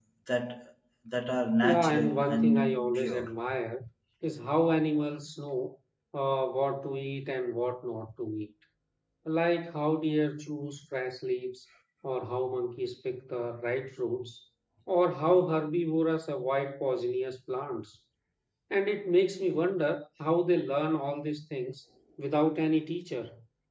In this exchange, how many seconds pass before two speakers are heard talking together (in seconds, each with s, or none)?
1.6 s